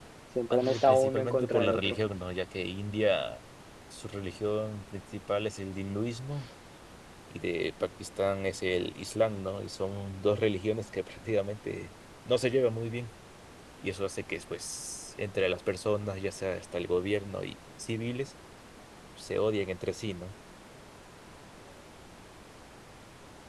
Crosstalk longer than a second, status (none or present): present